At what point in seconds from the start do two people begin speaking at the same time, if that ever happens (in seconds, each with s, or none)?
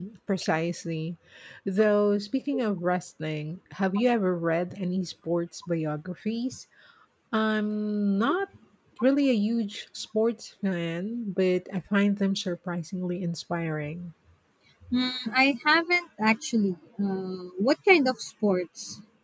none